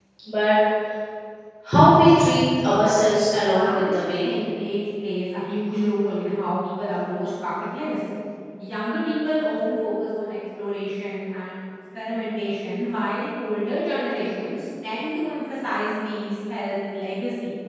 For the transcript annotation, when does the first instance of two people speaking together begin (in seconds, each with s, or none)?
2.5 s